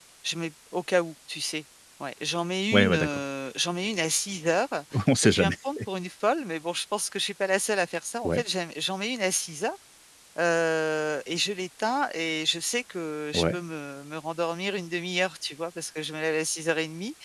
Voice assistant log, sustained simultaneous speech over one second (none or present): none